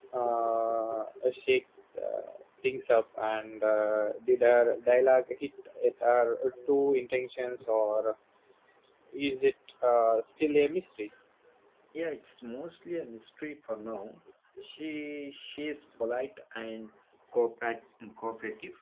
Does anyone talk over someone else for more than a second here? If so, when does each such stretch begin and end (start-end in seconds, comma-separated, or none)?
none